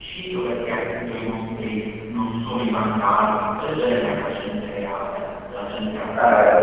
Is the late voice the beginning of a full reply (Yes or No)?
Yes